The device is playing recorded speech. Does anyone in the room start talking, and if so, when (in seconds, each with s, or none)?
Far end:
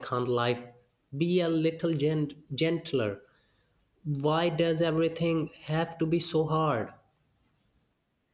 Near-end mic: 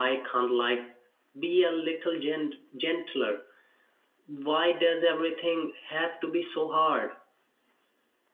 none